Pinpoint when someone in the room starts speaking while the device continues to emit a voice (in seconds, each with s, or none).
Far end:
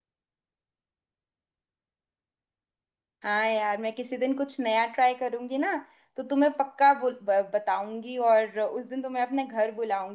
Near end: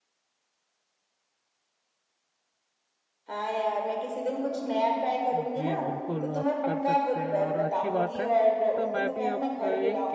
5.3 s